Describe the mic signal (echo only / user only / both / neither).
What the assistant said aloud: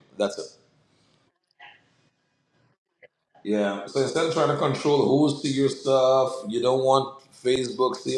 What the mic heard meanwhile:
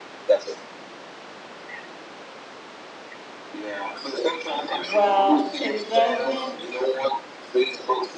both